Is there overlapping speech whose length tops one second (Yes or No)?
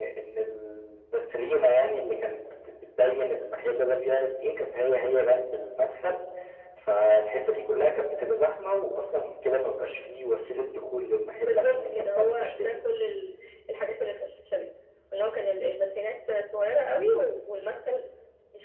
Yes